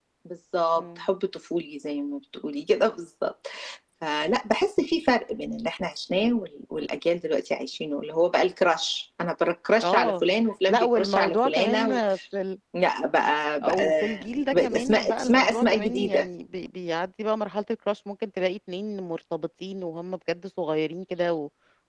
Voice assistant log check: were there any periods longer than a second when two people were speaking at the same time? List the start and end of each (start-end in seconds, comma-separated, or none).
10.7-12.0, 14.5-16.2